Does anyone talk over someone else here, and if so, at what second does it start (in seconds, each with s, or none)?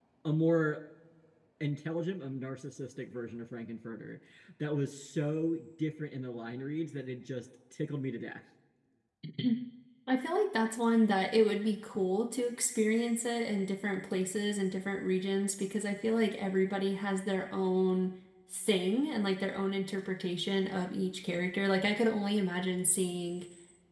none